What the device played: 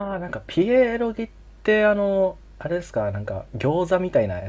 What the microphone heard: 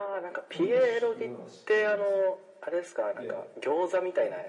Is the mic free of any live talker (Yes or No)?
No